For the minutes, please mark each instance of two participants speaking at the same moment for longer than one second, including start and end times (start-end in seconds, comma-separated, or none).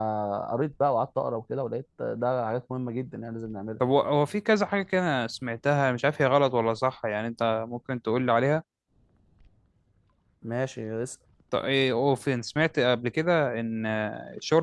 none